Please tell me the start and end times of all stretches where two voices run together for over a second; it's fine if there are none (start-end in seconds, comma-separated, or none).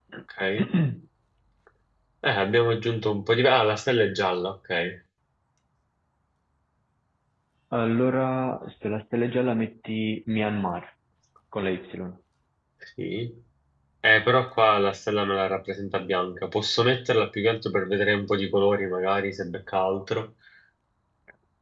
none